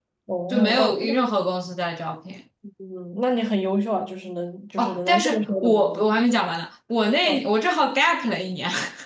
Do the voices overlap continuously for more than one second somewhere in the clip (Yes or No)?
Yes